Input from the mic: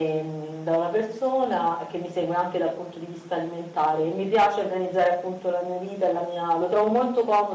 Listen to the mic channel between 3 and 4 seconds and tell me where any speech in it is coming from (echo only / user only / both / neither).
echo only